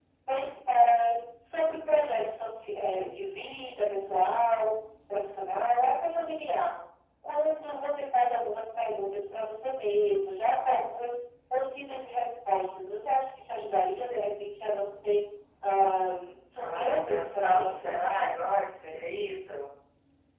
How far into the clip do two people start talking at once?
17 s

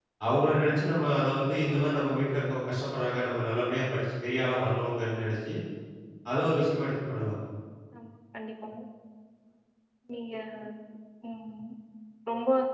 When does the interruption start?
none

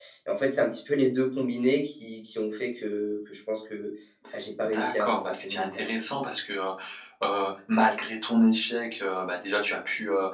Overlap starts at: 5 s

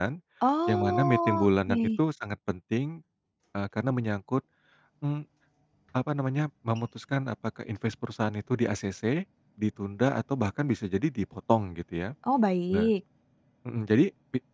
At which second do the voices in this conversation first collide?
1 s

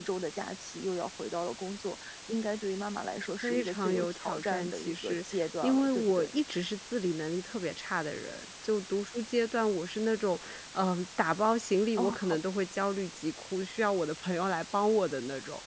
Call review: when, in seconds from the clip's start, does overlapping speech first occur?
3 s

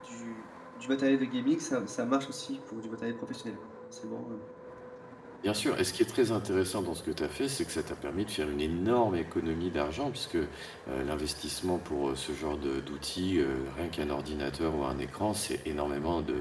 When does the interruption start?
none

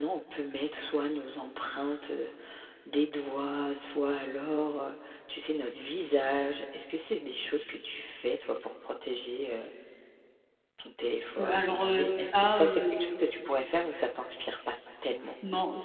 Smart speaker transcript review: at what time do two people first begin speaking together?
11 s

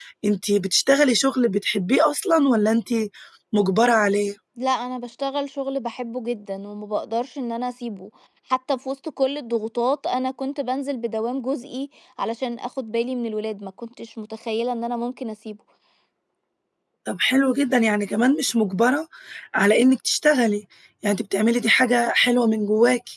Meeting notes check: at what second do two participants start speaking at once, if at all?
none

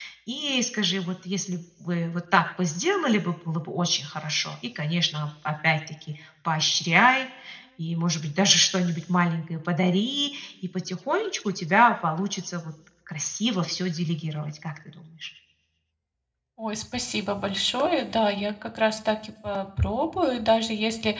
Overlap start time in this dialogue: none

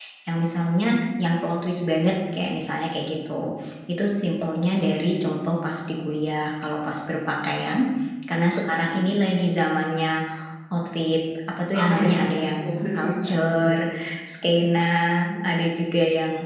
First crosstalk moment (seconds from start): 12 s

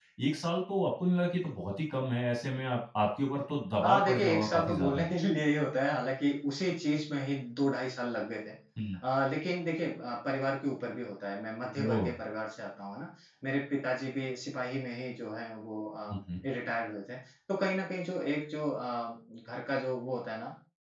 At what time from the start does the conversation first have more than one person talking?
4 s

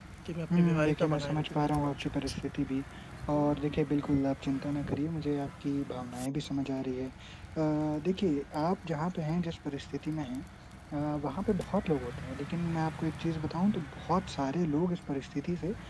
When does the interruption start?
1 s

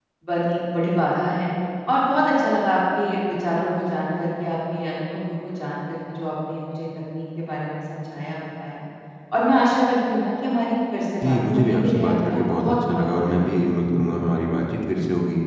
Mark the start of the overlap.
11 s

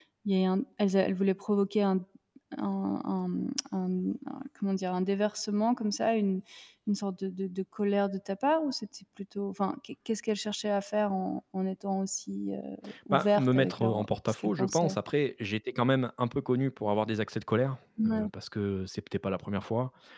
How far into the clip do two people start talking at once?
13 s

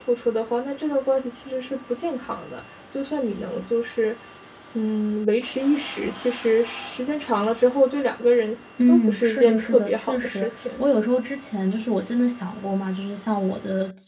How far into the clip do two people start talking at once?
9 s

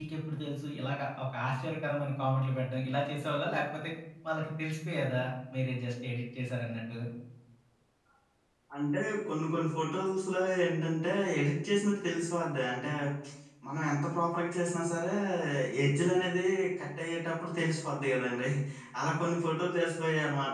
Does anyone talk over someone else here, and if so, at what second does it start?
none

